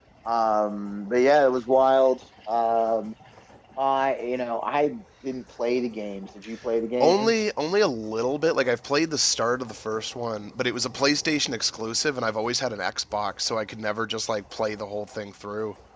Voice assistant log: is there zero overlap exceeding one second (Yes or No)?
Yes